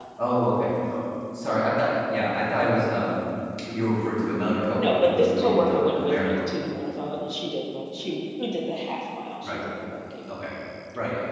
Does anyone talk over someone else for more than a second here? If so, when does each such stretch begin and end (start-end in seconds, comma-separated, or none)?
4.8-6.6